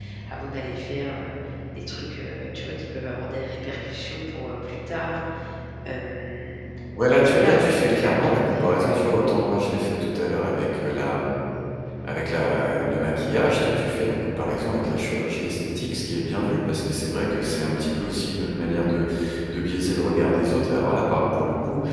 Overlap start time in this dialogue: 7 s

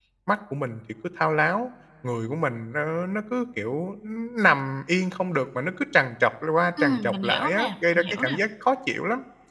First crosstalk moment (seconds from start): 7 s

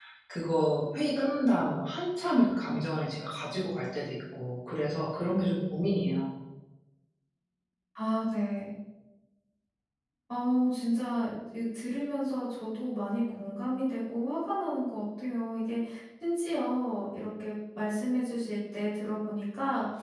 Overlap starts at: none

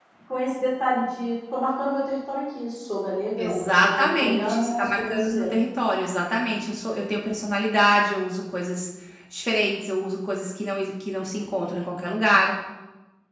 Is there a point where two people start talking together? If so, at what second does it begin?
3 s

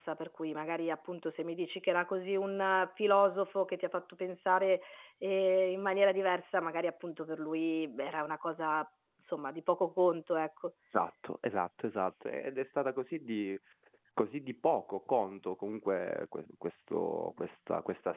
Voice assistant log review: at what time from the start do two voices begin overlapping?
none

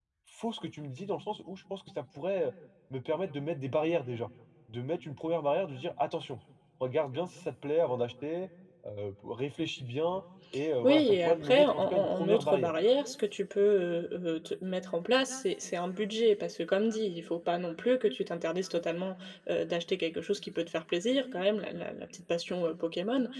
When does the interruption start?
11 s

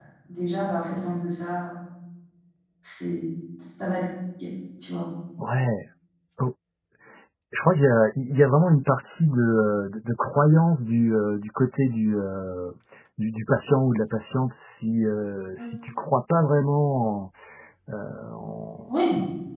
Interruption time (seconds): none

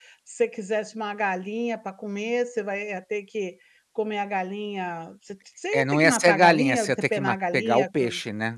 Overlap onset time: 6 s

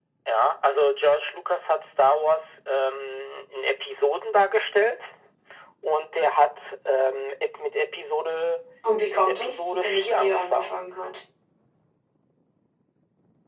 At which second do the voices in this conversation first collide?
9 s

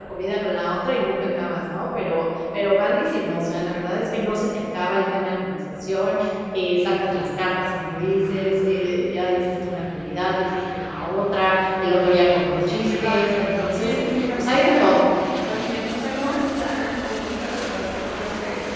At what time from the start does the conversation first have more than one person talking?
13 s

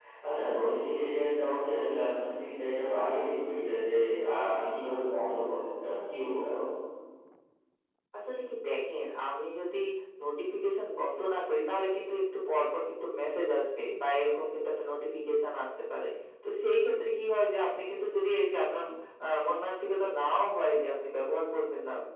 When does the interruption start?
none

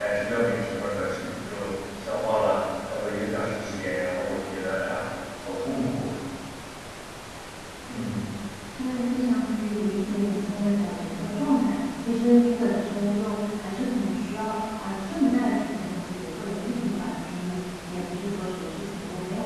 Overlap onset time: none

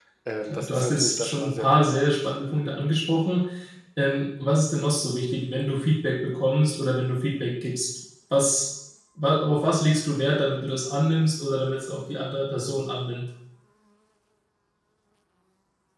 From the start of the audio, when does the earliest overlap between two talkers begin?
1 s

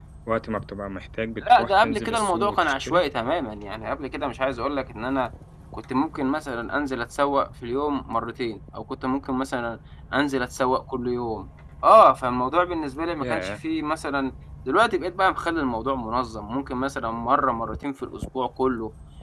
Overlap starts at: 1 s

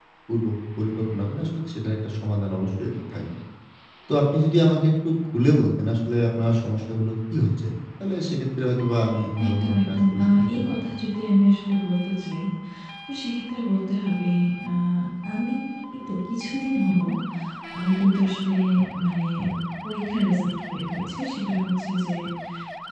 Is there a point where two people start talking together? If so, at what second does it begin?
9 s

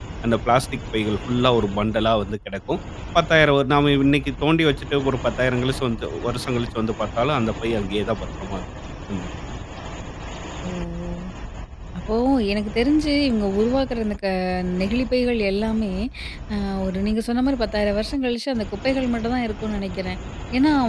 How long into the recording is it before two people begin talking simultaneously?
none

